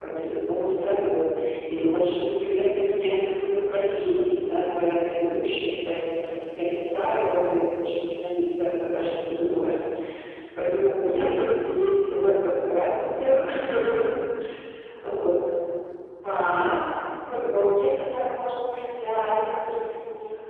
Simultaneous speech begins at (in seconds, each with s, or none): none